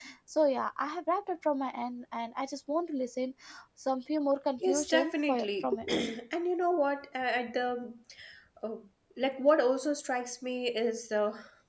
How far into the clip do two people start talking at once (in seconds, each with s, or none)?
4.6 s